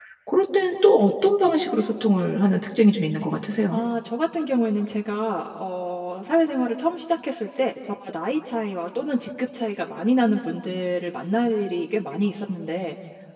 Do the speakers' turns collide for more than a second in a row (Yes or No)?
No